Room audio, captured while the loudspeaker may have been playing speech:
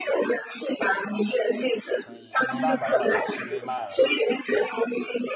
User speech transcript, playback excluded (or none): 所以她没办法要把这个契约卖了。